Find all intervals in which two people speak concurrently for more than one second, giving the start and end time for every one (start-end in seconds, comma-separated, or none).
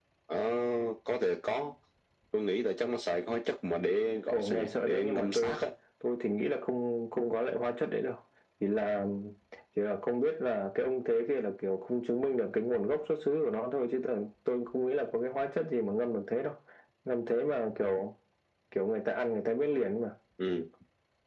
4.3-5.6